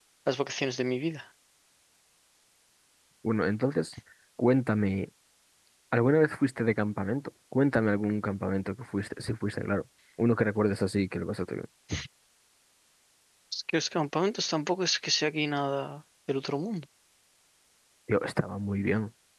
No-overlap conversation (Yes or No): Yes